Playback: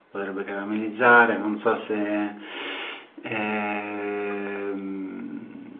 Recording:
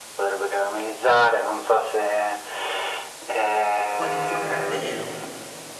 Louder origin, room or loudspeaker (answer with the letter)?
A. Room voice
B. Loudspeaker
B